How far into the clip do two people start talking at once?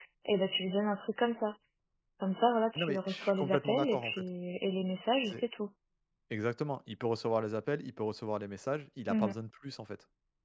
3 s

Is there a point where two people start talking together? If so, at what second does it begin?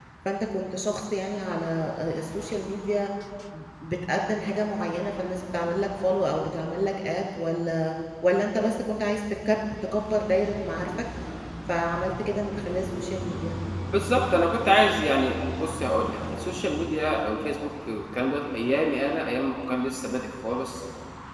none

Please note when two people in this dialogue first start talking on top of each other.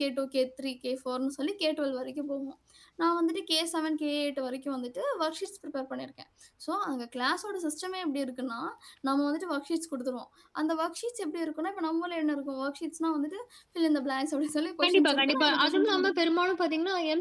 15 s

